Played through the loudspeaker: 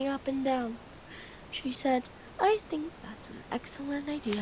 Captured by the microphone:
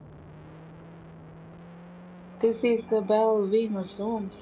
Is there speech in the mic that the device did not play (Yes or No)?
Yes